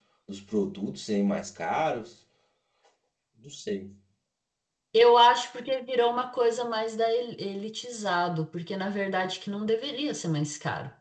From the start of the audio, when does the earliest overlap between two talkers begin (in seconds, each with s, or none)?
none